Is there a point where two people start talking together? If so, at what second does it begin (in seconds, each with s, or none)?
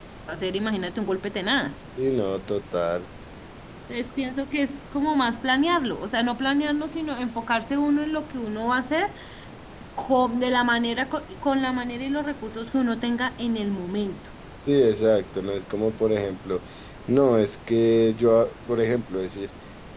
none